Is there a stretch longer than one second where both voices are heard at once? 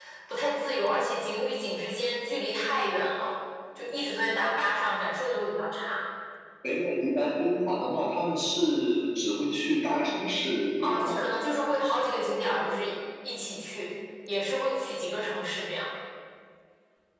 No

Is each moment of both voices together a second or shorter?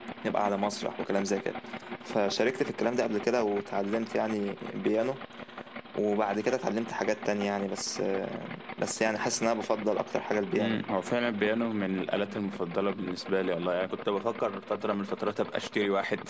Yes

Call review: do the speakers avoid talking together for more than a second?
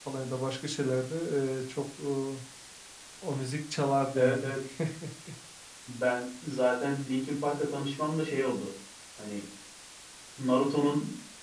Yes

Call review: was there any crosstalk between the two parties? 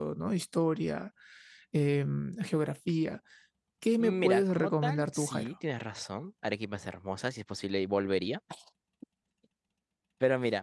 Yes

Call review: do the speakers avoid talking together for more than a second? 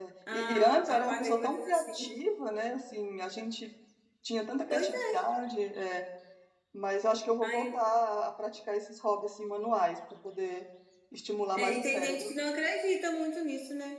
No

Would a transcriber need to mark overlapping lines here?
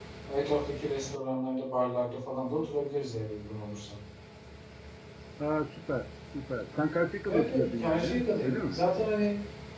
Yes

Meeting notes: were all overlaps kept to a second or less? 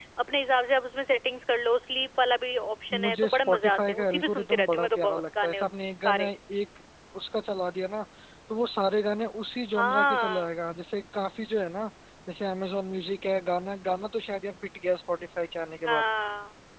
No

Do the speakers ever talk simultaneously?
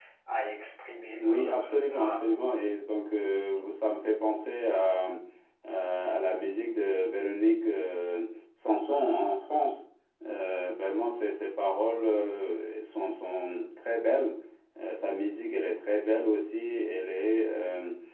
Yes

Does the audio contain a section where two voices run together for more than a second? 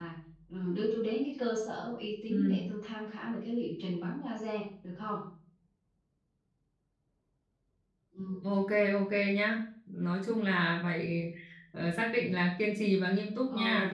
No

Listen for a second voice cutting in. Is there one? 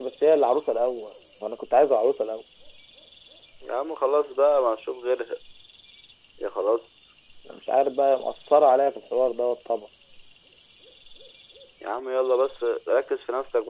No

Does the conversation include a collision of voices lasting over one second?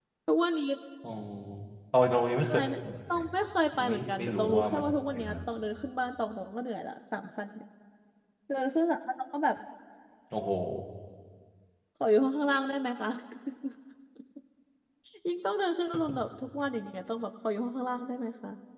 Yes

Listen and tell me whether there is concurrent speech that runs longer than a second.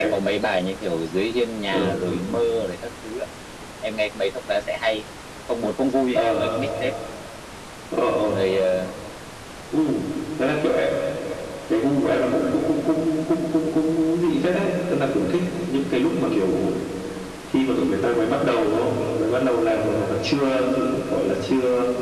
No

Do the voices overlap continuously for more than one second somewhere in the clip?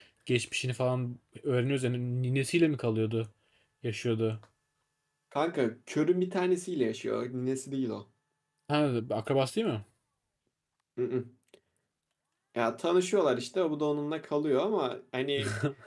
No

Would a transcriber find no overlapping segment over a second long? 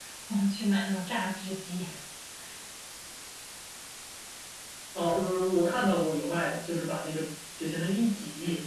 Yes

